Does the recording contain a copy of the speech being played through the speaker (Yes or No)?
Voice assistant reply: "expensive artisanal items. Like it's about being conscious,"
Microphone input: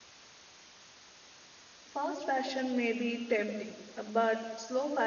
No